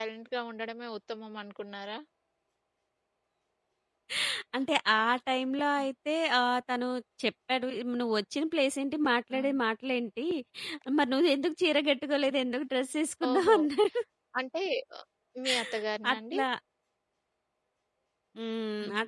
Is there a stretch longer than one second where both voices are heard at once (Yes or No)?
No